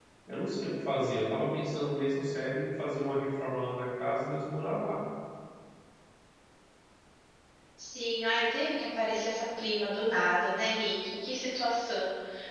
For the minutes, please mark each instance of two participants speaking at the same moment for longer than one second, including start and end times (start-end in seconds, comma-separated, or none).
none